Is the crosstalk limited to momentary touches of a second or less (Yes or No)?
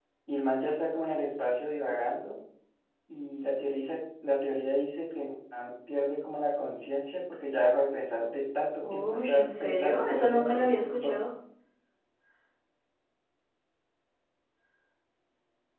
No